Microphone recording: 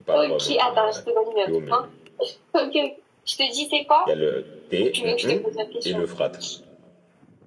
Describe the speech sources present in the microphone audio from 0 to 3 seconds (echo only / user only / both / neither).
both